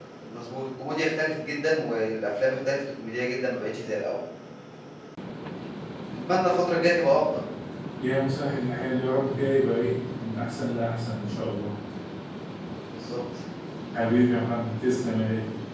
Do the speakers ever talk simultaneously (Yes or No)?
No